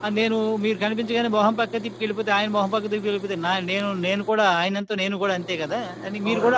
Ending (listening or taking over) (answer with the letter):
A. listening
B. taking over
B